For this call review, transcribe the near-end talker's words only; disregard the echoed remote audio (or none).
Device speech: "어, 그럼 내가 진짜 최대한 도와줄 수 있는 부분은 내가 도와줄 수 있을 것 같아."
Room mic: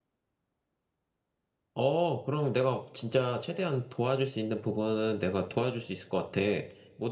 none